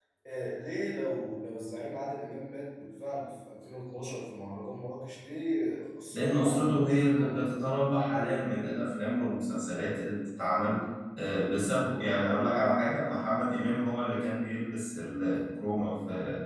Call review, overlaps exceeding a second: present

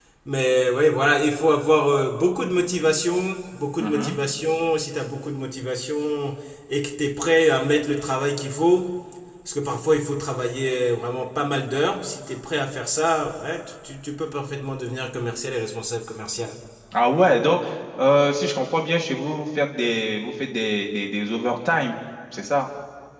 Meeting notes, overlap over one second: none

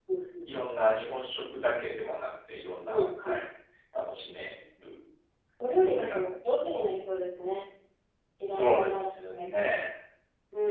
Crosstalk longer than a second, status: present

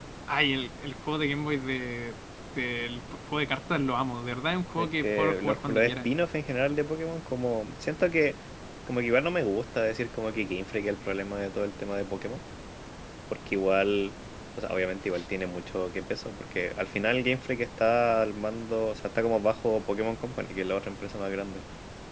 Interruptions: present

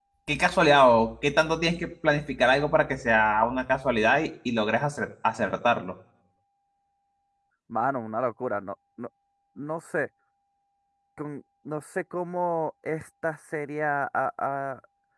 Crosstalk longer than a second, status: none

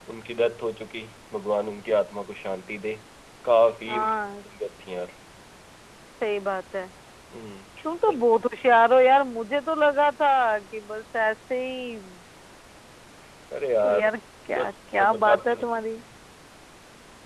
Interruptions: present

